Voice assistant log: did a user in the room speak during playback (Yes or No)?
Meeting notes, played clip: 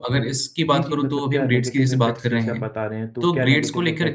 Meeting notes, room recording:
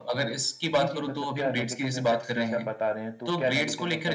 No